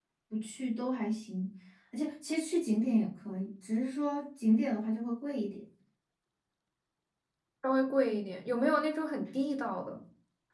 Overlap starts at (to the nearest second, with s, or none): none